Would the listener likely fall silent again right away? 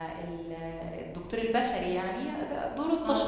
Yes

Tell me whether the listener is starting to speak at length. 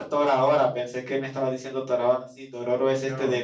No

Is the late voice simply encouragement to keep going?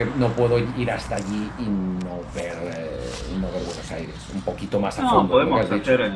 No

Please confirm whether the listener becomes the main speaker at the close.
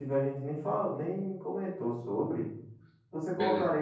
No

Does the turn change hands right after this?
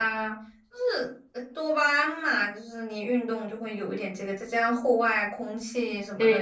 Yes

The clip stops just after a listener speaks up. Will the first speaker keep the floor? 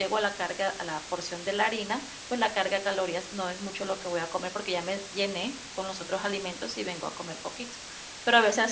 Yes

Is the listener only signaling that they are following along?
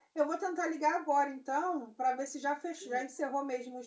Yes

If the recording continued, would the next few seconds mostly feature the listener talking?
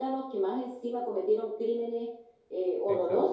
Yes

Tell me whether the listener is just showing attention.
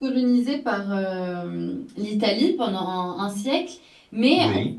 Yes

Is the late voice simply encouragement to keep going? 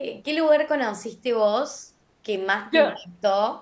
Yes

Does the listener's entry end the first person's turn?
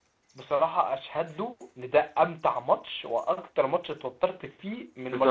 Yes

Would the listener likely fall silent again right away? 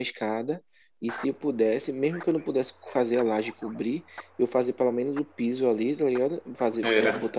Yes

